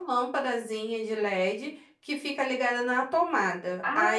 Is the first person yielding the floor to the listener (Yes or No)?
No